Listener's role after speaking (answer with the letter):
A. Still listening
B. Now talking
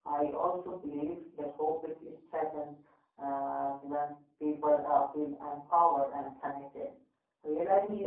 A